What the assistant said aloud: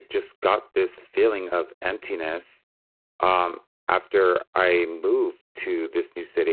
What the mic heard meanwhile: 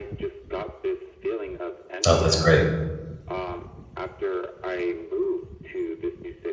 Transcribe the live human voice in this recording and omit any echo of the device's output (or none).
oh that's great